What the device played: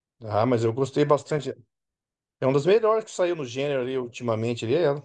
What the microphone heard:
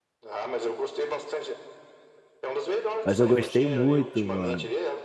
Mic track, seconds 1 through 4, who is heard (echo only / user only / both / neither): both